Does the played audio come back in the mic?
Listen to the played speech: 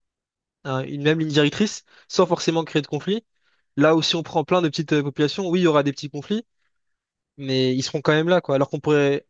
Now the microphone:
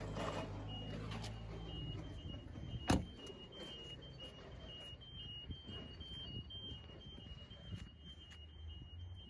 No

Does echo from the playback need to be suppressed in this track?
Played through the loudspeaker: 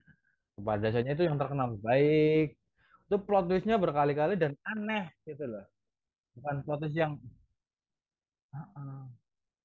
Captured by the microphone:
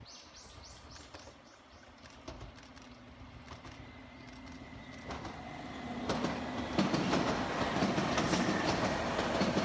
No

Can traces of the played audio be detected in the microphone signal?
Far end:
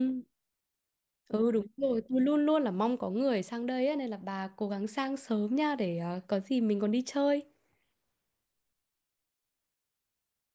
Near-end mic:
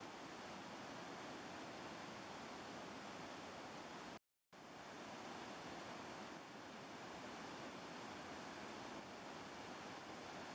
No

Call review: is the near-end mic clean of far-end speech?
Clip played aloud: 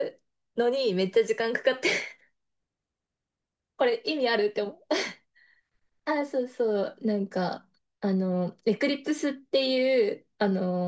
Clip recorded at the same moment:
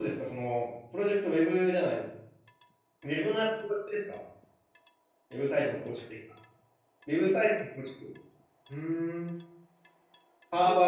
Yes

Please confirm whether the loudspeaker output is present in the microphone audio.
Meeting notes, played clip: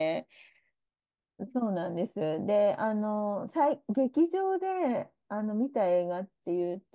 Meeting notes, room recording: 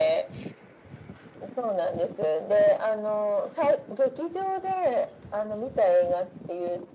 Yes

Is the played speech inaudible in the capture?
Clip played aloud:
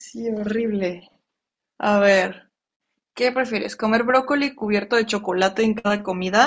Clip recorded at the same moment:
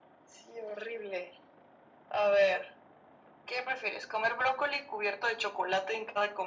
No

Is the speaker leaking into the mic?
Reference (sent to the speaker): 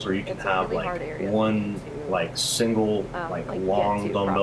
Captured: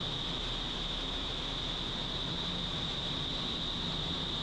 No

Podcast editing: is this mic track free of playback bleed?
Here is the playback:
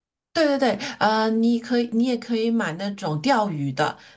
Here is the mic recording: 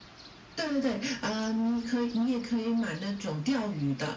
No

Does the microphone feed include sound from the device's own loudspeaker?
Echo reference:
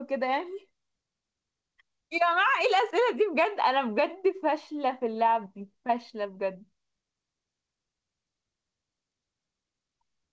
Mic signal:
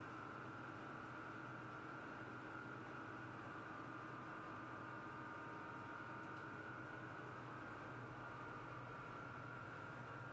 No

